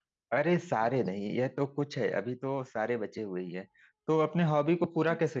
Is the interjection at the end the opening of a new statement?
No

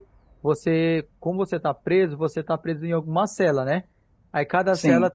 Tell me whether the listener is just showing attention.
Yes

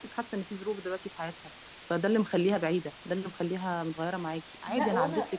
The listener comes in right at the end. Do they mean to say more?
Yes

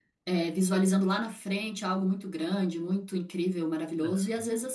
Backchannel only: Yes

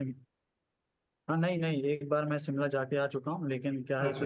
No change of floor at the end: Yes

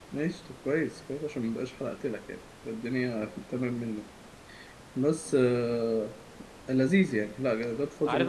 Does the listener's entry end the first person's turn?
Yes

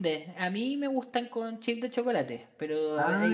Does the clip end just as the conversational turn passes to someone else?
No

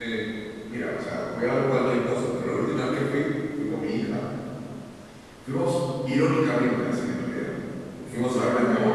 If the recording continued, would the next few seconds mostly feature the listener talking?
No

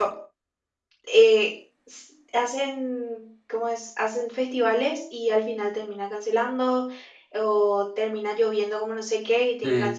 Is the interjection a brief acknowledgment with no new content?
Yes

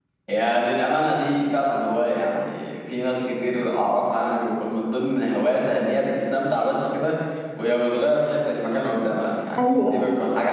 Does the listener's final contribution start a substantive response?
No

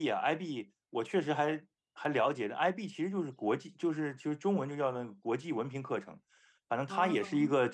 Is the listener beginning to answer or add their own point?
No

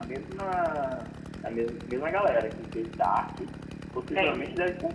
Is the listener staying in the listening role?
Yes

